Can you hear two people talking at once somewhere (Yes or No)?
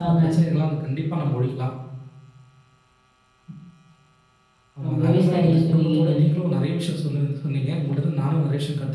Yes